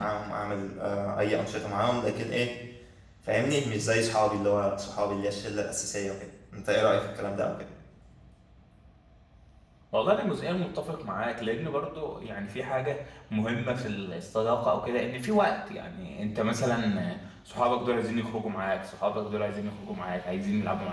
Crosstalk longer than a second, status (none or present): none